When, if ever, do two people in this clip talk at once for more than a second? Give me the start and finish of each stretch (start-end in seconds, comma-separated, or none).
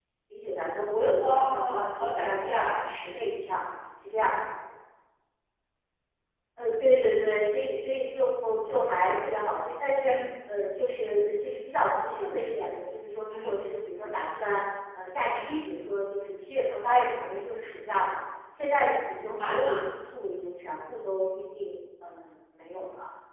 1.2-2.9